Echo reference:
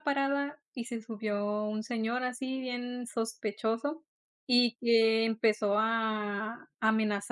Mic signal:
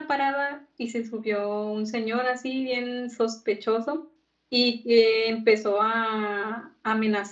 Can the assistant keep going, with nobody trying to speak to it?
Yes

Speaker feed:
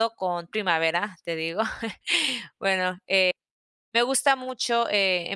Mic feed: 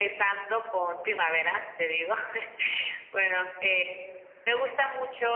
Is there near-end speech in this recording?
Yes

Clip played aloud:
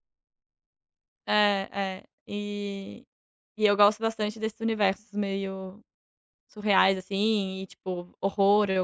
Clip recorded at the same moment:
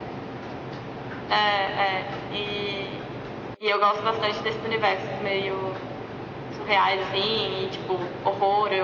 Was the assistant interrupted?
No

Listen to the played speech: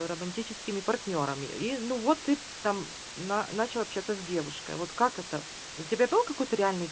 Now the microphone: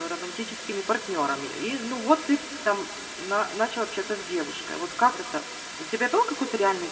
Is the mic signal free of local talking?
Yes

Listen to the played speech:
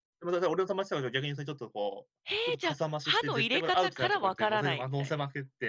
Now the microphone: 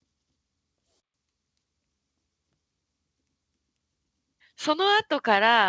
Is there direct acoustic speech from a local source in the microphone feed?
Yes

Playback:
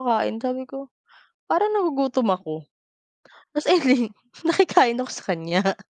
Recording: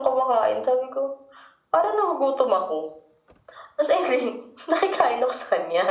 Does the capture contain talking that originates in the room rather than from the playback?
No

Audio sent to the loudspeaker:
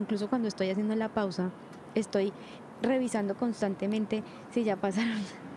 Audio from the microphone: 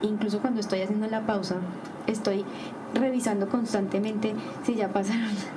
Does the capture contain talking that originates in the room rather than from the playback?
No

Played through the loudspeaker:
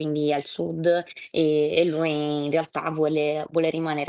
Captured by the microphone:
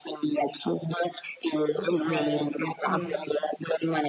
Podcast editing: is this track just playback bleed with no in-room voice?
No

